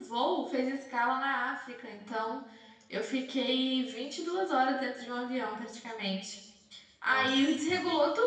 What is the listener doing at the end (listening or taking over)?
listening